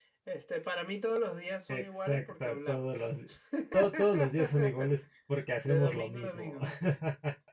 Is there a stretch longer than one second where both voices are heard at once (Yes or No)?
Yes